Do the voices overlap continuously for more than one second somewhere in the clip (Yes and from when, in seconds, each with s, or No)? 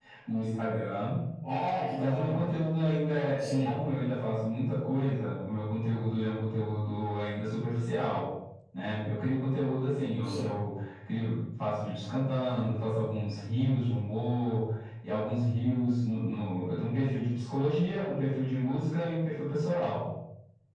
No